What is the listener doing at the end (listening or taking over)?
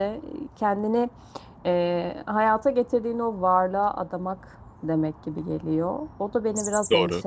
listening